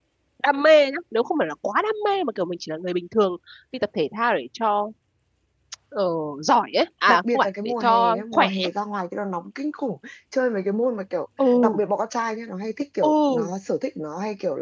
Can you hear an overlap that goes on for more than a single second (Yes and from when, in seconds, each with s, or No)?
Yes, from 7.1 s